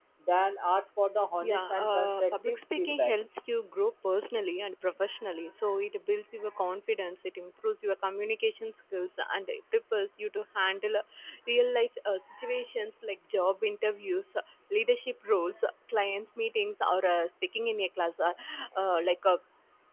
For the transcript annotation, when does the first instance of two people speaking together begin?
1.4 s

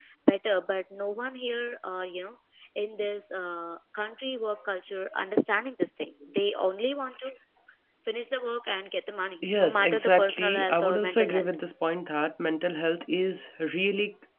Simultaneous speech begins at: 9.4 s

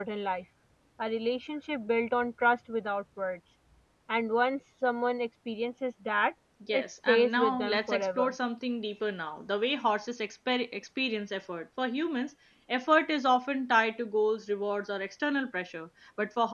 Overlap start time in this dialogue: 6.7 s

